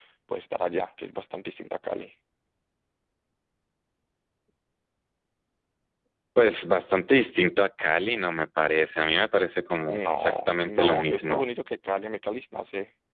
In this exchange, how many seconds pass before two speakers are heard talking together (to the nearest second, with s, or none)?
10 s